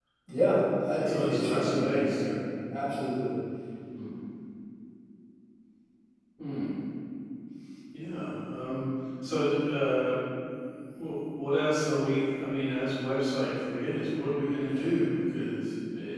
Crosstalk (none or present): present